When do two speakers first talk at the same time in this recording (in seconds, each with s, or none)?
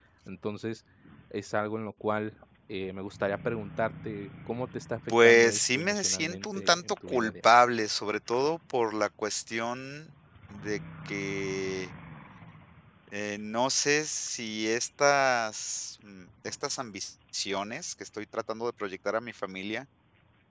5.1 s